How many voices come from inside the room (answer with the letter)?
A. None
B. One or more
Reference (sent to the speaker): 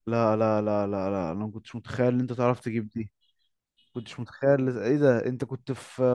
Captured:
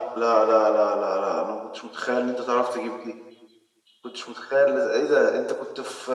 A